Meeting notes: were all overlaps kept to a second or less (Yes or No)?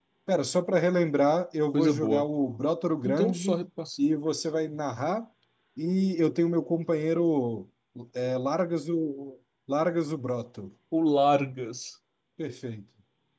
Yes